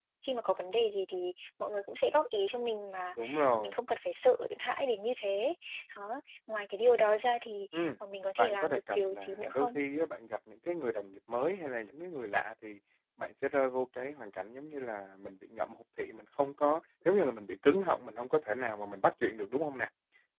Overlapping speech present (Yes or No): Yes